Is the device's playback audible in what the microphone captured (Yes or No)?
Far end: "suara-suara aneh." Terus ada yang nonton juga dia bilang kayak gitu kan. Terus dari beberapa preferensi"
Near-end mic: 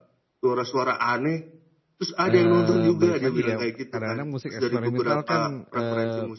Yes